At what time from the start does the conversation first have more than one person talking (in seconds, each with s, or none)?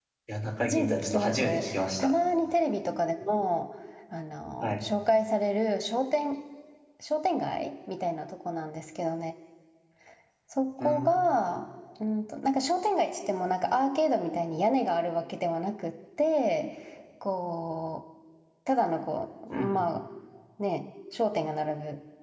0.6 s